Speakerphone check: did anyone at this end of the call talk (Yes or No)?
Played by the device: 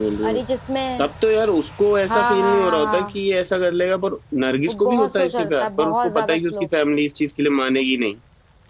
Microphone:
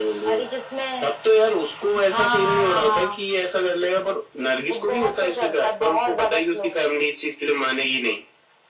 No